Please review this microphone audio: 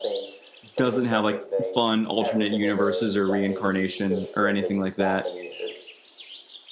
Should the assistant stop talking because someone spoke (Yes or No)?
Yes